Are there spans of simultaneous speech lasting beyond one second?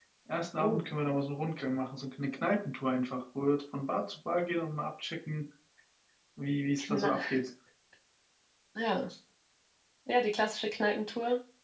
No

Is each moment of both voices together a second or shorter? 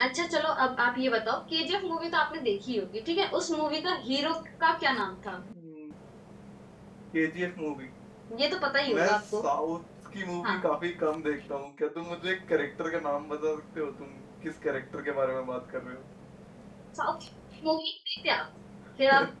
Yes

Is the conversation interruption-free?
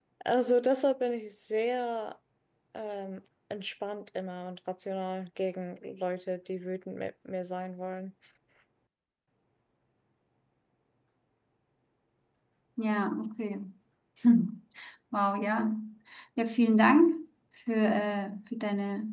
Yes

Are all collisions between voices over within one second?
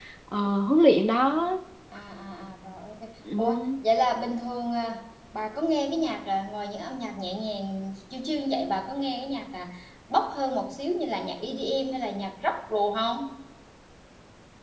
Yes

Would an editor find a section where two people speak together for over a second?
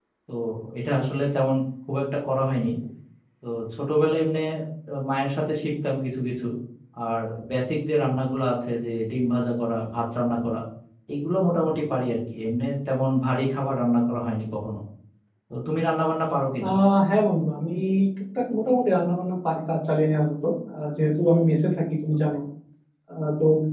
No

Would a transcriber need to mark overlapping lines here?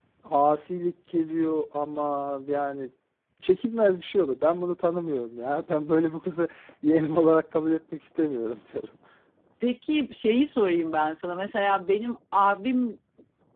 No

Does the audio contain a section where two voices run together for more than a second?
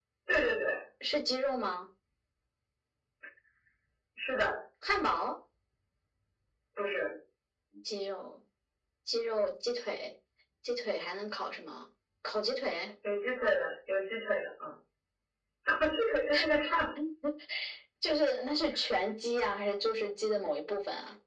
No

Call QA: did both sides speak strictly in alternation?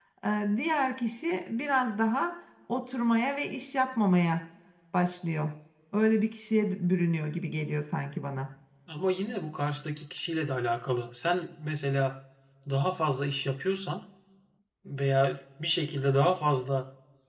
Yes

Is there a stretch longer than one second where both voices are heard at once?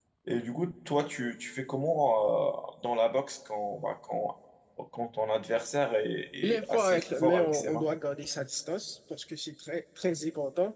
Yes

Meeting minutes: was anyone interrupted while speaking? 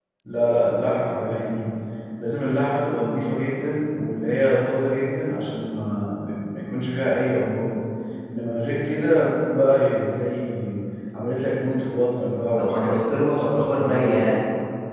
Yes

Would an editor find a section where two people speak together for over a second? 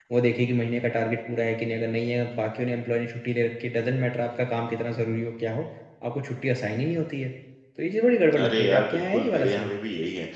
Yes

